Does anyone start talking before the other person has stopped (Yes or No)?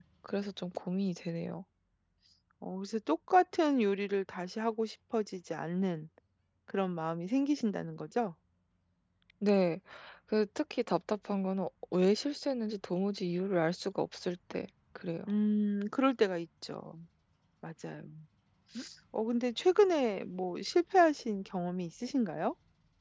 No